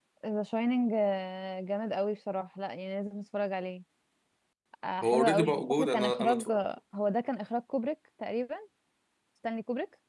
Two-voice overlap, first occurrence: 5 s

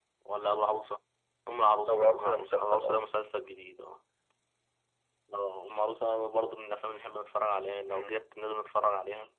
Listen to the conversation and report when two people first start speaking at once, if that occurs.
2 s

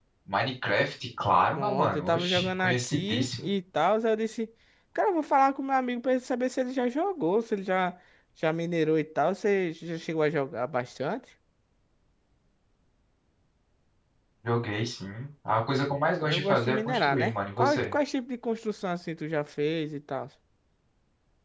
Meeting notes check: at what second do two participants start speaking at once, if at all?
2 s

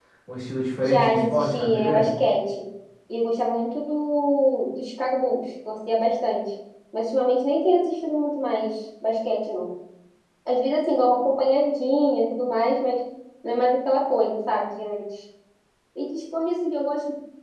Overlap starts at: 1 s

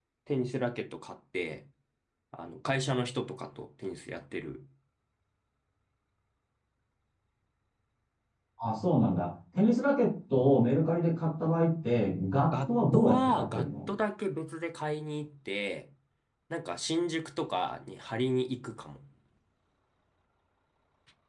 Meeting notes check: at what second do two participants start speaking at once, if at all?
13 s

